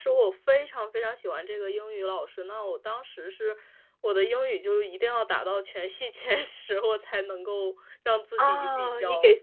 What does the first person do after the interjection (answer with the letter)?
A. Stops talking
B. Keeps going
A